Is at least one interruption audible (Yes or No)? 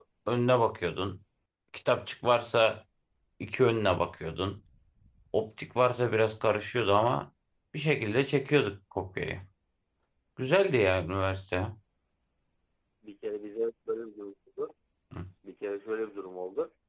No